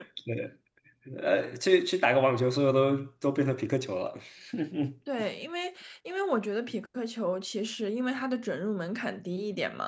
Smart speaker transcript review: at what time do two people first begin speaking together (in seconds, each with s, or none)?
none